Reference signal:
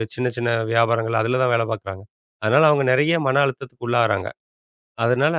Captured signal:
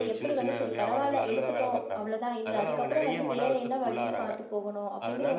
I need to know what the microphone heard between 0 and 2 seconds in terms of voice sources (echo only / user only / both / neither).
both